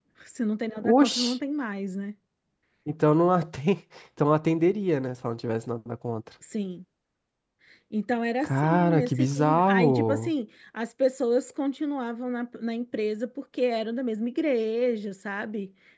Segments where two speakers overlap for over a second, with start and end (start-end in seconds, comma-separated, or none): 8.4-10.3